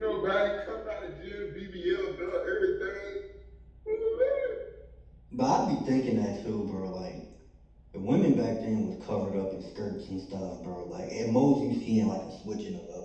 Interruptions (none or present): none